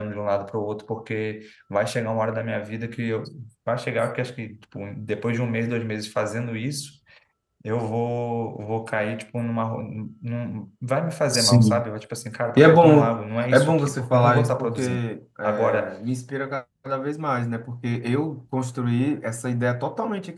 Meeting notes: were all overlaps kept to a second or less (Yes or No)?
No